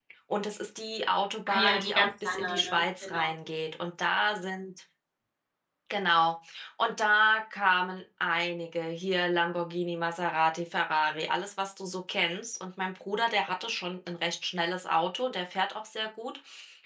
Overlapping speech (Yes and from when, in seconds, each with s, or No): Yes, from 1.5 s